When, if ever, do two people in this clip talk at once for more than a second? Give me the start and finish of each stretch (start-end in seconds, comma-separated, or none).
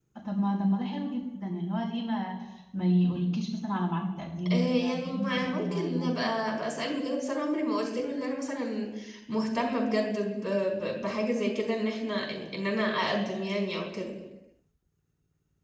4.5-6.2